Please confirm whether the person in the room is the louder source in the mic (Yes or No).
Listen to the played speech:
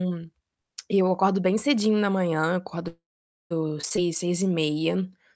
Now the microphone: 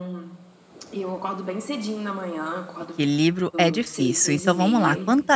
Yes